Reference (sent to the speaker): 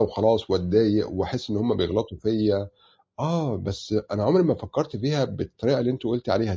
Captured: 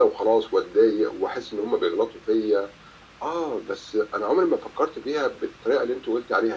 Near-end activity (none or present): none